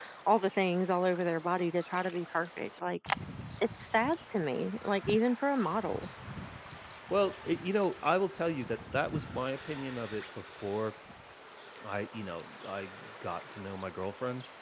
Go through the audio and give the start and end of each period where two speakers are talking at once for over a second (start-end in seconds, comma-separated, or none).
none